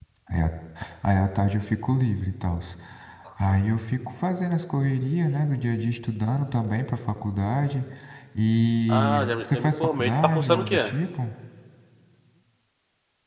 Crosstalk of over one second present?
Yes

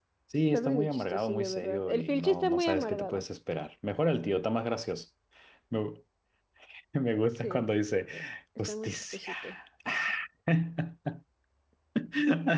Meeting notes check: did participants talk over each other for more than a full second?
Yes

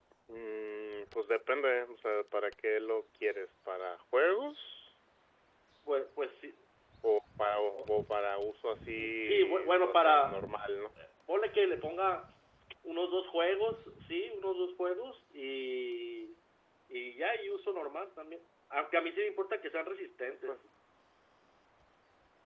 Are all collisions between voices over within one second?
No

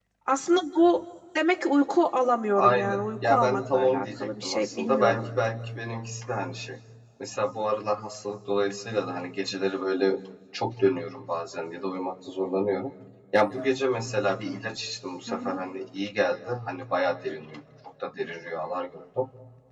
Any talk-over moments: Yes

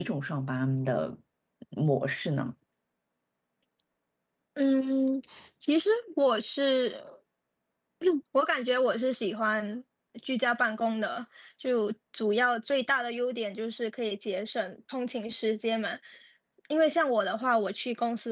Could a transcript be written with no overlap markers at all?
Yes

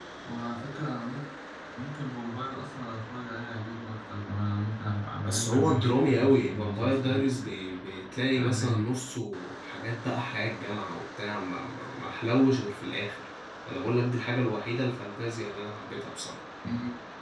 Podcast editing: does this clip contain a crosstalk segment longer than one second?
Yes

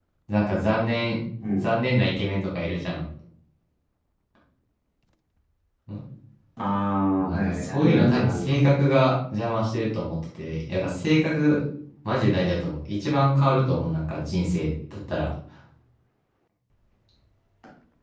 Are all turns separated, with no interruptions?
No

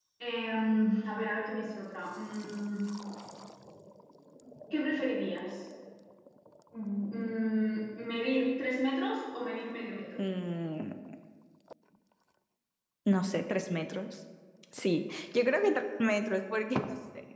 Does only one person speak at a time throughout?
Yes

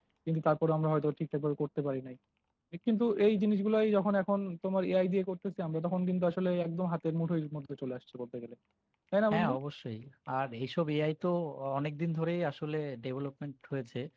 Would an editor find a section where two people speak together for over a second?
No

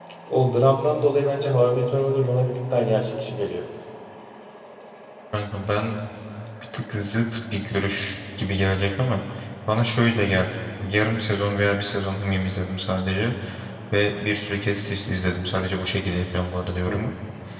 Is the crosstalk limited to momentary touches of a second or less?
Yes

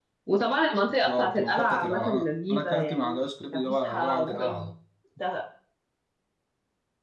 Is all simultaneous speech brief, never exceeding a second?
No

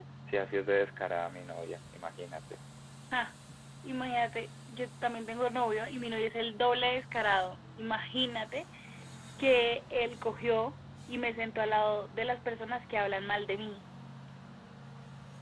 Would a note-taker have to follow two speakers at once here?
No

